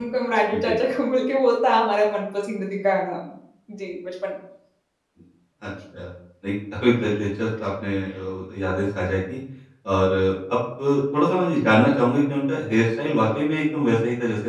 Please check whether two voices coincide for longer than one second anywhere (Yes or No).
No